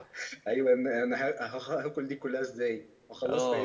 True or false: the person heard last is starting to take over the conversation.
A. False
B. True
B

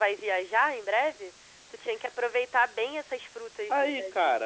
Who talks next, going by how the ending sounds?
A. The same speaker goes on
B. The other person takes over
B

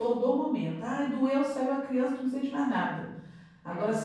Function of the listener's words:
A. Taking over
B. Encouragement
B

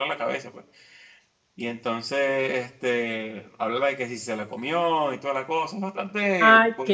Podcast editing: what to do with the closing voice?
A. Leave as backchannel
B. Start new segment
B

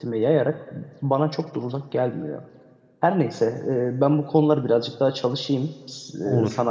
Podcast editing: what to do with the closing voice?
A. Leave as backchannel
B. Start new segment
A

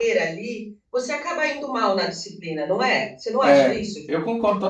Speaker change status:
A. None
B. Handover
B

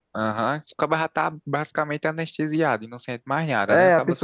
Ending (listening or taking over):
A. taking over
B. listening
A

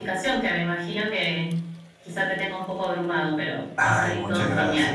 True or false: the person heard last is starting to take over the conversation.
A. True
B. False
A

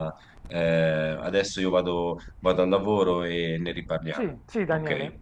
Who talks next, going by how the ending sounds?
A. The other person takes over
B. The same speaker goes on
A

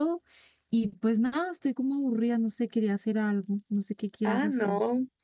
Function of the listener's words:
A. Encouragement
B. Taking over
B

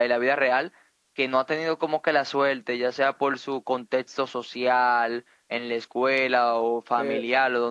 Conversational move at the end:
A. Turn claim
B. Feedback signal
A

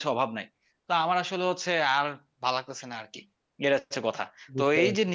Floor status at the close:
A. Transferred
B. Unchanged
B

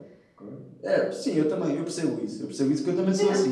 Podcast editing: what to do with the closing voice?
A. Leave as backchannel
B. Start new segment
A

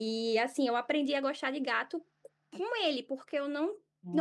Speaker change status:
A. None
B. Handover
A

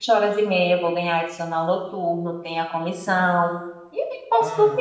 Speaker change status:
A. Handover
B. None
B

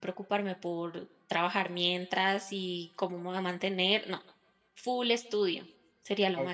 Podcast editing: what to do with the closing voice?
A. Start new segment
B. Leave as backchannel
A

